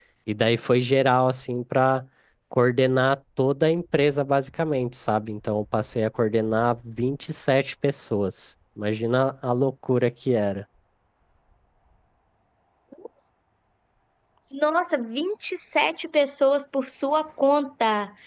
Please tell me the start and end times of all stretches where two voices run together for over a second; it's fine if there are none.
none

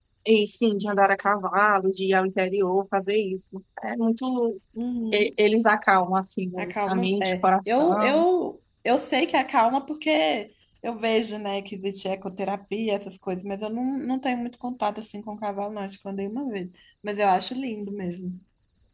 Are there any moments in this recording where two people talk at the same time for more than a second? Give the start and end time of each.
6.6-8.2

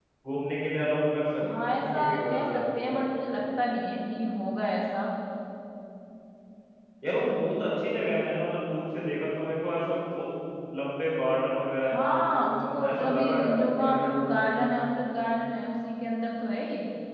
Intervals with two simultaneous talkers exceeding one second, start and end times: 1.6-3.1, 11.9-14.4

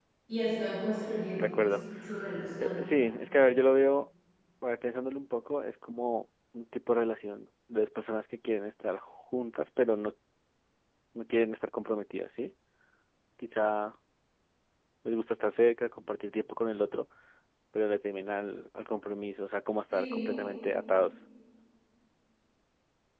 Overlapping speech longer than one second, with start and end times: none

